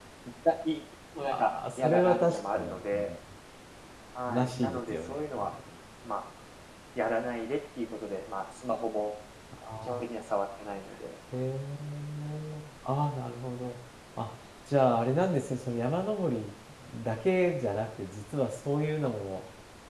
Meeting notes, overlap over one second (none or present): present